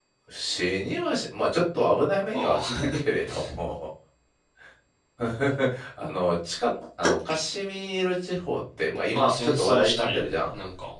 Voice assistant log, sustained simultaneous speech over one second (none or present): present